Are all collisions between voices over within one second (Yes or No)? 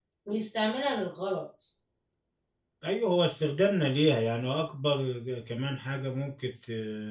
Yes